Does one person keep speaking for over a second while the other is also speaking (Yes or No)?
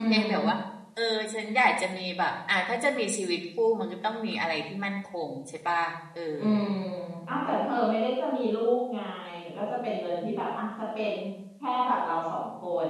No